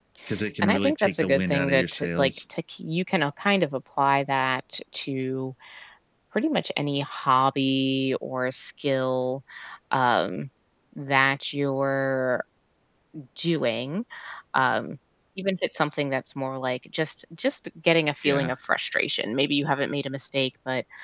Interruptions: present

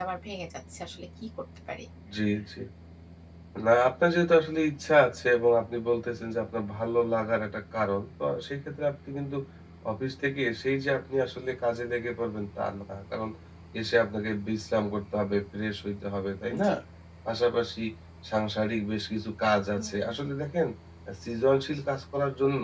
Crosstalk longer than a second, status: none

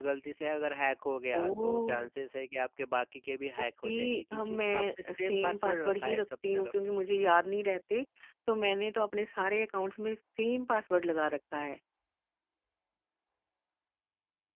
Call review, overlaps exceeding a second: present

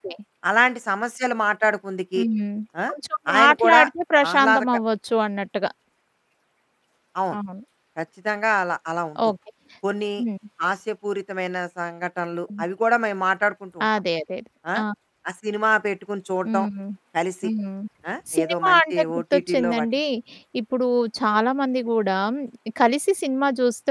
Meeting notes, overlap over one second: present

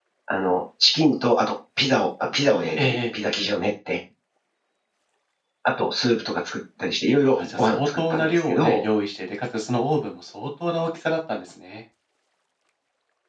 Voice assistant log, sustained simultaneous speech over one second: present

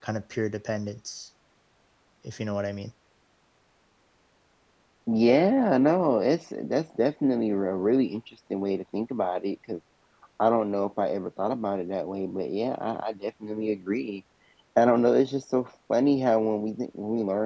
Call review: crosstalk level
none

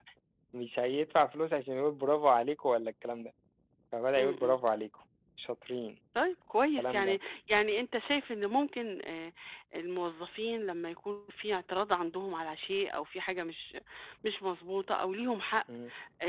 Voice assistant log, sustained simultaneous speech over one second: none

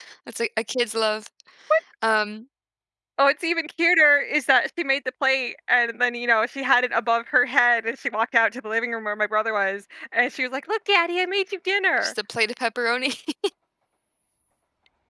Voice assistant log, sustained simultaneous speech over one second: none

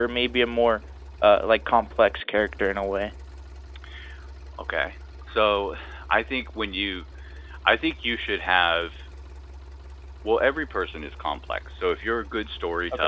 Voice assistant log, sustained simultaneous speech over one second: none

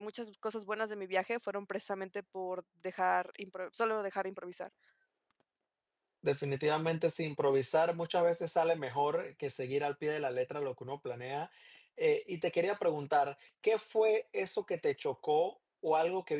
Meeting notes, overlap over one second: none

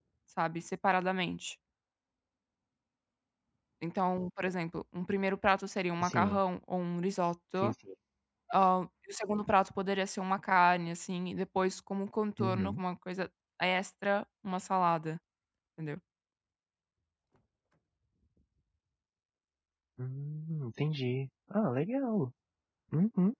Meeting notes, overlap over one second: none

